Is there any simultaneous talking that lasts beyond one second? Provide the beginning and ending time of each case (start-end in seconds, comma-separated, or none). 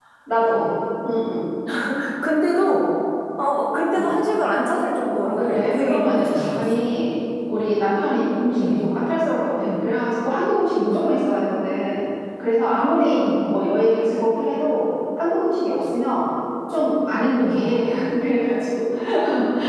5.4-6.8